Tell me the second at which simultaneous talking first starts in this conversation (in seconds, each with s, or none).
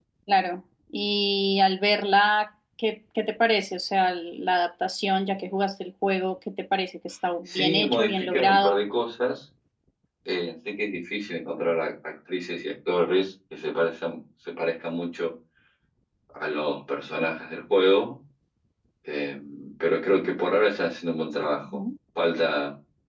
7.5 s